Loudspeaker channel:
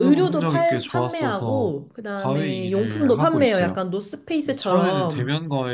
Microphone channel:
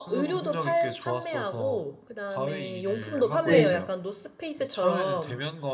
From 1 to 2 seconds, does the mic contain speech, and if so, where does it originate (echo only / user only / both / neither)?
echo only